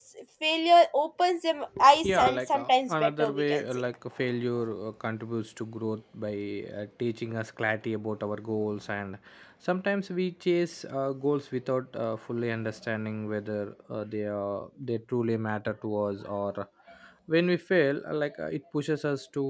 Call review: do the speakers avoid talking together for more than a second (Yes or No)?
No